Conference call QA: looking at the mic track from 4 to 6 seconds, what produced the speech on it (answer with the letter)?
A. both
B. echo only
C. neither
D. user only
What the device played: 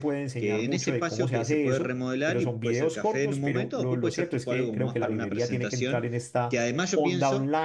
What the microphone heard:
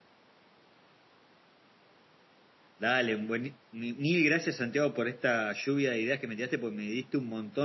D